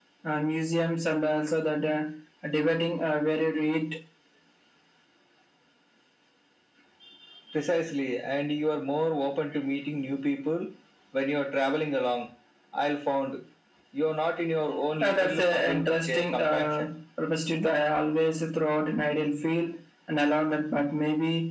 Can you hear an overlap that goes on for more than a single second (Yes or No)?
Yes